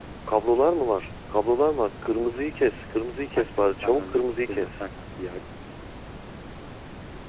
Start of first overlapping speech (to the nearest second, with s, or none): 3 s